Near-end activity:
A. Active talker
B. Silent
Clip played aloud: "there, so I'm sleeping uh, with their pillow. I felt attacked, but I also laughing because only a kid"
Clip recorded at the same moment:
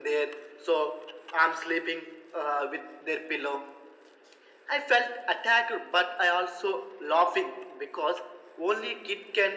B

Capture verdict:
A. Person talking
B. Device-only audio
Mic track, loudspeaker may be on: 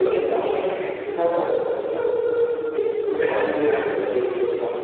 B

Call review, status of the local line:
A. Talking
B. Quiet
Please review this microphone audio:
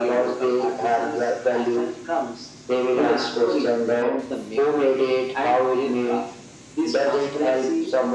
B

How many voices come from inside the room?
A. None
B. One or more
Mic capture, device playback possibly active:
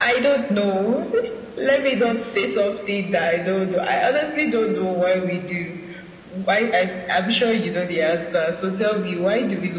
A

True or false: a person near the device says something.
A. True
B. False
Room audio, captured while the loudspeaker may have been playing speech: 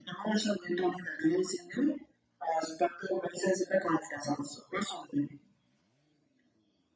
B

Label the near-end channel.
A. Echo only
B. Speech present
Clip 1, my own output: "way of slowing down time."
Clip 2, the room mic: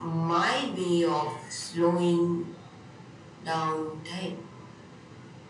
A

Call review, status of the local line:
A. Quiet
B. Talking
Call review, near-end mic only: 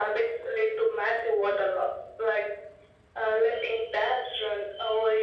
A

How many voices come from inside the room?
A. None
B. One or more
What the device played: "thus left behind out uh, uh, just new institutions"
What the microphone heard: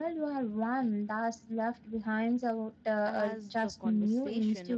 B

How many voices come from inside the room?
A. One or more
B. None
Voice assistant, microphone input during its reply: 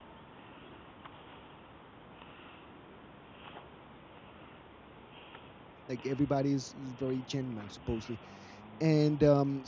A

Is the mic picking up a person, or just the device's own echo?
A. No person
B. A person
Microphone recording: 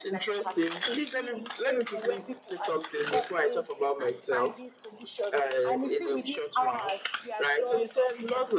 A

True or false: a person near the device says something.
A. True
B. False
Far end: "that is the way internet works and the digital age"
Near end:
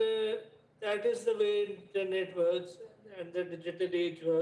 B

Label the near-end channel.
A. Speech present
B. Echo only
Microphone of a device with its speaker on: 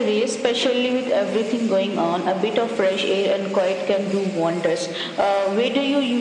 B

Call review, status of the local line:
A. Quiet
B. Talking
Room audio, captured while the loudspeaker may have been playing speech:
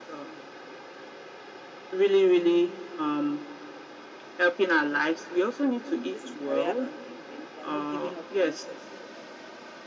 B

